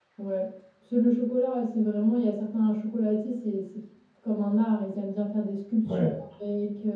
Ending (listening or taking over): listening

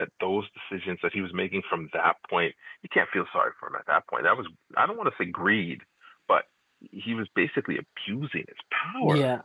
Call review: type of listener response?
taking over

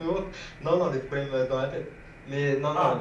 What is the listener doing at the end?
listening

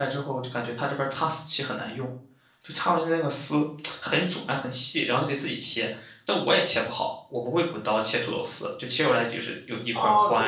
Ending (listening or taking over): taking over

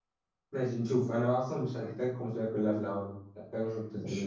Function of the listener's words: taking over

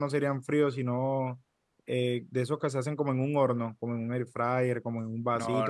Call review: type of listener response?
listening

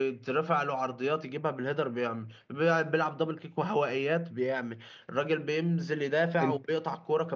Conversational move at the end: listening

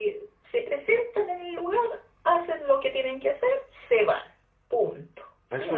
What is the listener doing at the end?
taking over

